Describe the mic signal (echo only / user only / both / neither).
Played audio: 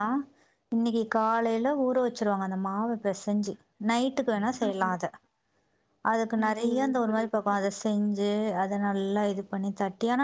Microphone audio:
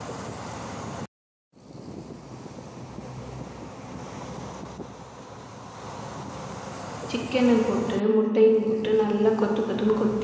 user only